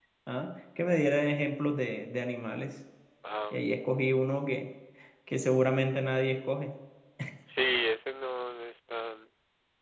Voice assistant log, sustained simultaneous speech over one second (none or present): none